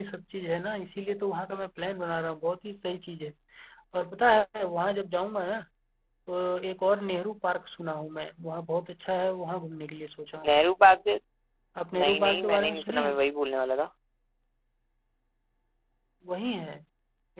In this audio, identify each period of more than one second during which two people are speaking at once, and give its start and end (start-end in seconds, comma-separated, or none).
12.0-13.2